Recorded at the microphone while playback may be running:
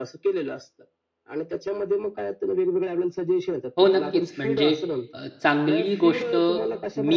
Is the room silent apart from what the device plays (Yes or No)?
No